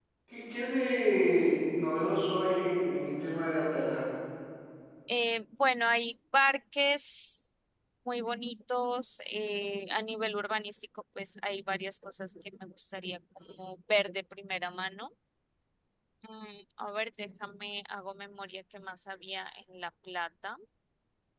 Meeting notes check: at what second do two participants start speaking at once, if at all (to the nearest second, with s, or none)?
none